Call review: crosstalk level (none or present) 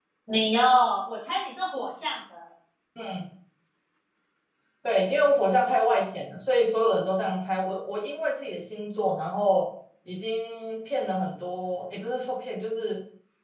none